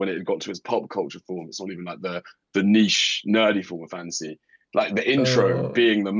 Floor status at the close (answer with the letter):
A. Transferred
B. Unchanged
B